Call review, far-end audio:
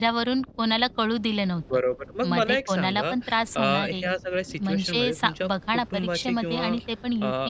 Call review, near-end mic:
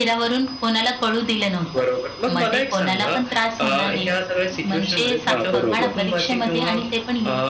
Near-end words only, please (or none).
हां, बरोबर.